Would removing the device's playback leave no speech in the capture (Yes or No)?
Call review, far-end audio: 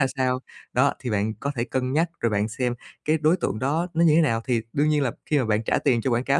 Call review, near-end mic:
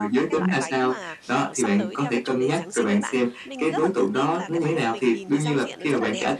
No